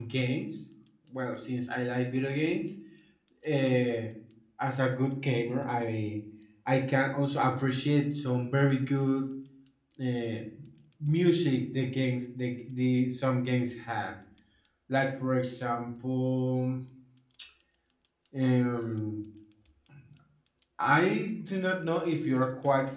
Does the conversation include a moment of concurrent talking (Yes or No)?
No